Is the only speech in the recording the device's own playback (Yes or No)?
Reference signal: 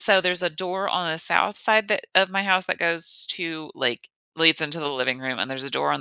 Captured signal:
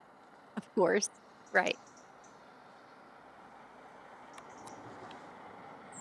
No